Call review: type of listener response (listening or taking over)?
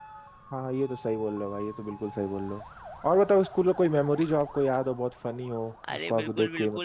taking over